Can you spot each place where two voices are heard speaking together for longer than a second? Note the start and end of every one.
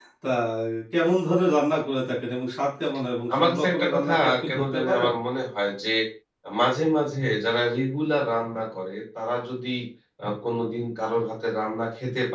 3.3-5.1

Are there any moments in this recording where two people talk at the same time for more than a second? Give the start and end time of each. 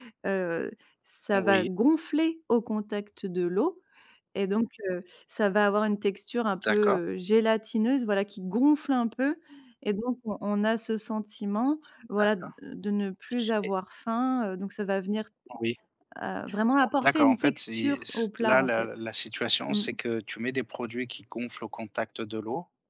17.0-18.9

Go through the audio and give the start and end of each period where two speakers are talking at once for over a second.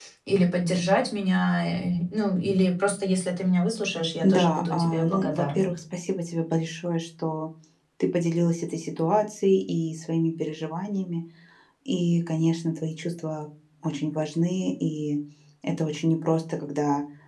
4.2-5.7

